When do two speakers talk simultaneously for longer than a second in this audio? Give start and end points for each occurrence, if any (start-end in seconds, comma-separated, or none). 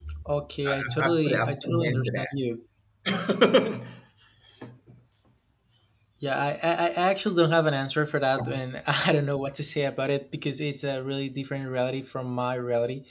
0.7-2.0